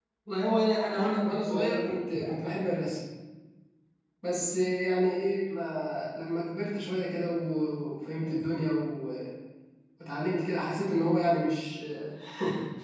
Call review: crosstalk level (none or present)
present